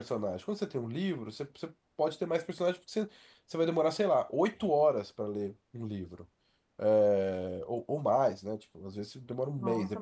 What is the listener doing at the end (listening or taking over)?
taking over